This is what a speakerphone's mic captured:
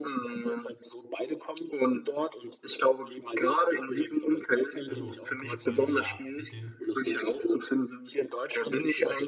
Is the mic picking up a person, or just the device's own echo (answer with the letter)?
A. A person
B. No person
A